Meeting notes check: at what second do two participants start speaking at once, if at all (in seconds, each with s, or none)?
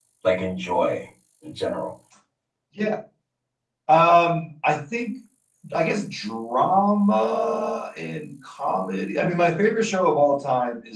none